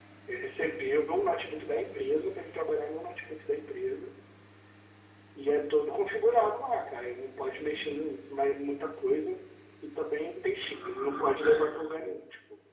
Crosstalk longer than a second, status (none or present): present